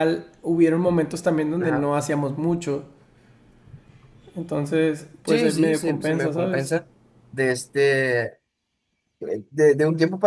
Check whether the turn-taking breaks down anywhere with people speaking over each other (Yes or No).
Yes